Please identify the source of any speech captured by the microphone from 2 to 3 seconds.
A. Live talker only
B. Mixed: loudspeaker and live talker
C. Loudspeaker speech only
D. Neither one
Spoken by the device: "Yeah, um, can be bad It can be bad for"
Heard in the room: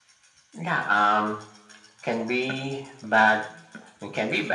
C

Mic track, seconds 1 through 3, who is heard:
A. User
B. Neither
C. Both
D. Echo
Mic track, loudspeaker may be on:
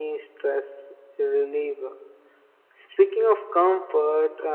D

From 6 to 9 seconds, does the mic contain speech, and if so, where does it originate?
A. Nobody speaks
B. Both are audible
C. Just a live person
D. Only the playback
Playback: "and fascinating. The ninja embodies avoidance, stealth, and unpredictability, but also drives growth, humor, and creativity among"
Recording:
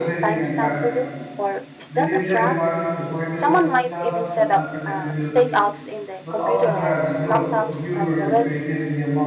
B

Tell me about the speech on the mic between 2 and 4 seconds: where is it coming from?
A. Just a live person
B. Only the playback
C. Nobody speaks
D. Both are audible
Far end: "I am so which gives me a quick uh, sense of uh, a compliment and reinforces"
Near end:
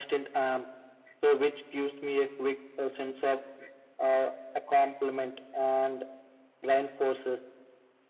B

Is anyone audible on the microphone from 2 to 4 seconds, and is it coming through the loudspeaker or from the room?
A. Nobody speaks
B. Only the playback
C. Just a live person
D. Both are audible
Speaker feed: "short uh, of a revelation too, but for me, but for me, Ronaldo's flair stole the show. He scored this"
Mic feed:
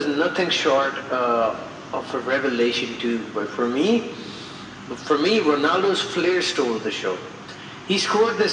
B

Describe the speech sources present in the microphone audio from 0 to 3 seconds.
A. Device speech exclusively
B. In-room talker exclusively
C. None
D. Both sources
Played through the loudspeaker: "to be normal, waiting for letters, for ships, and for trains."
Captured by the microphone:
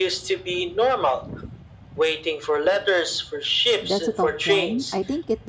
A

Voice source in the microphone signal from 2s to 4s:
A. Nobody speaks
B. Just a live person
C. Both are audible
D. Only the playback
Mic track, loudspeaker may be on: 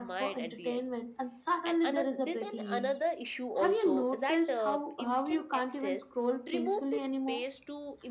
D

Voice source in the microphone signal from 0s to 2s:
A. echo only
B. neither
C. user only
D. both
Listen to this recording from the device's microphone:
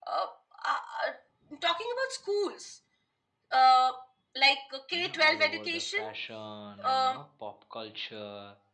A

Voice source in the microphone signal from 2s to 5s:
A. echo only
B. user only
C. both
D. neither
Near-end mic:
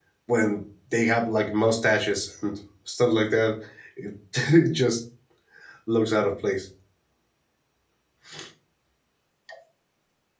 B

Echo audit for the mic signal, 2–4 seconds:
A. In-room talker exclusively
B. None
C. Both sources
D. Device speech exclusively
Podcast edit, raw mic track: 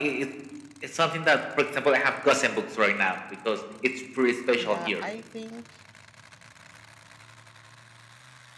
D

